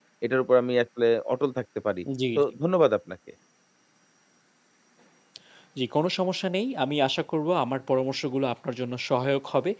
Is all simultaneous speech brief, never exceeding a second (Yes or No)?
Yes